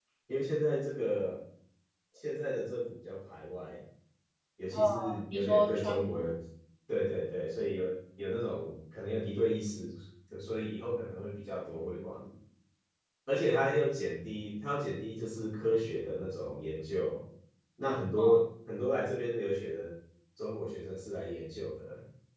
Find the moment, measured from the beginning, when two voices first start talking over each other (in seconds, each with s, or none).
4.9 s